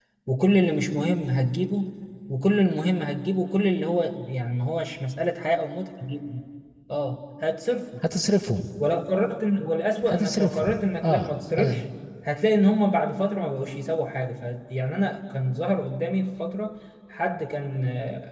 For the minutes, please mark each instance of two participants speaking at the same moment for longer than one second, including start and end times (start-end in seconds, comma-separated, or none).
10.0-11.3